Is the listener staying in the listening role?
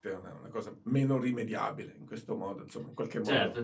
No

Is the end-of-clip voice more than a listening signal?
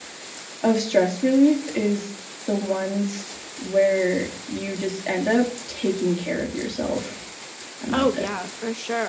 Yes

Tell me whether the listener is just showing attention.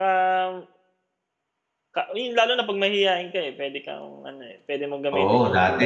No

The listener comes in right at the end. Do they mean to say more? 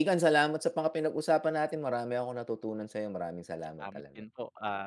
Yes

